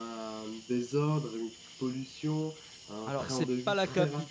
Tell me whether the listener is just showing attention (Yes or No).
No